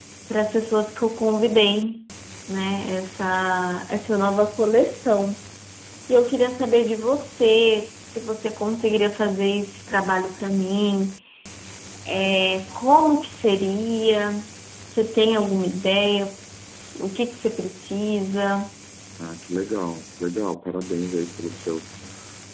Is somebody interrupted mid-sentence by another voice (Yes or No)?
No